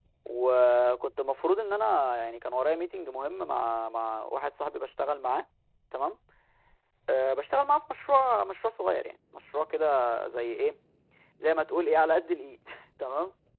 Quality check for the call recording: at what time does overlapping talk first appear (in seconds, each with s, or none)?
none